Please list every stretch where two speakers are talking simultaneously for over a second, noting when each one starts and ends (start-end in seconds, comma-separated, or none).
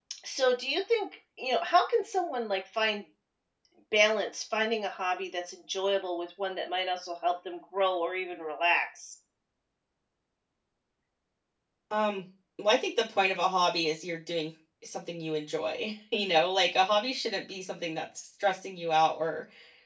none